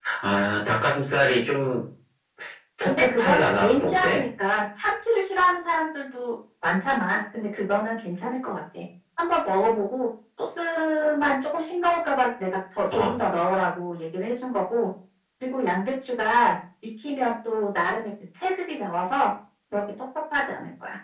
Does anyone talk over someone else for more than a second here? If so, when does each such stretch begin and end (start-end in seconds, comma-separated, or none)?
2.9-4.2